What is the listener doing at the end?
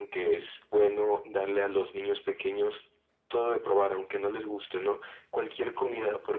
listening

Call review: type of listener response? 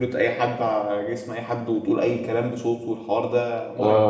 taking over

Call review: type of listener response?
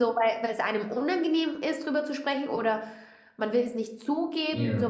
taking over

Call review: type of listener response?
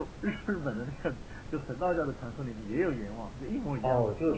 taking over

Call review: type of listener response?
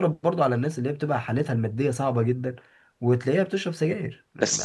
taking over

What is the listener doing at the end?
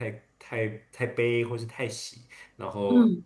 listening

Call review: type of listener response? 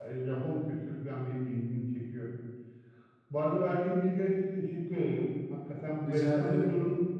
listening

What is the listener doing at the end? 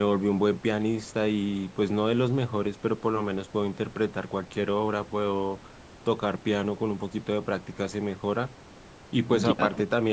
listening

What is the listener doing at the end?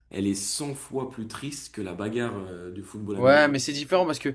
taking over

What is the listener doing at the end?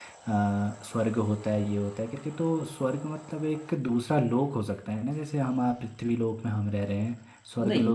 listening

